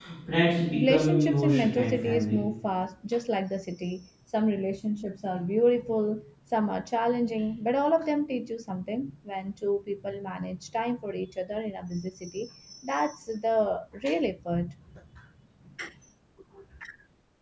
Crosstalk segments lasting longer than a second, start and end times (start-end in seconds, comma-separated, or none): 0.7-2.4